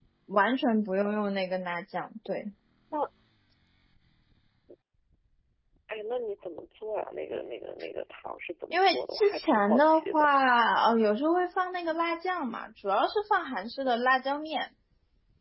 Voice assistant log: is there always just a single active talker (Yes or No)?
No